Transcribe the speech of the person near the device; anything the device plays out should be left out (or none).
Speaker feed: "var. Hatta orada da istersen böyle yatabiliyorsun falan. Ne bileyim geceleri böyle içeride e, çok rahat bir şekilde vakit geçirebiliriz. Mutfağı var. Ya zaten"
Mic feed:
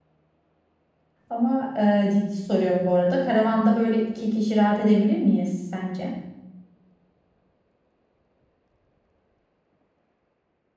Ama e, ciddi soruyorum bu arada. Karavanda böyle iki kişi rahat edebilir miyiz sence?